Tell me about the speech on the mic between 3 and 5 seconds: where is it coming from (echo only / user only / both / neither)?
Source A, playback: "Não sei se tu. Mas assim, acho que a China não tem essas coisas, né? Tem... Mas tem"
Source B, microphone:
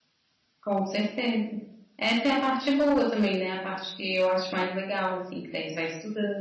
user only